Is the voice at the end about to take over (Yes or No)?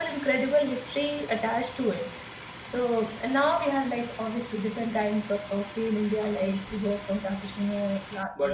Yes